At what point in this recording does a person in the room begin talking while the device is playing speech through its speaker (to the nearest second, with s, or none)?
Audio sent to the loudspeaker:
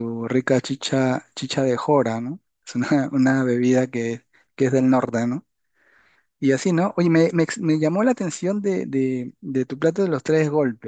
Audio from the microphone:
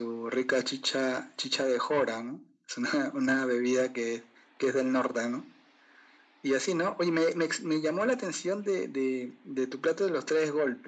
none